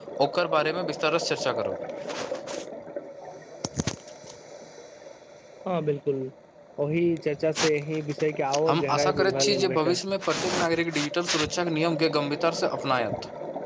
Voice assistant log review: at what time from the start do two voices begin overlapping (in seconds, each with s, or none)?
8.7 s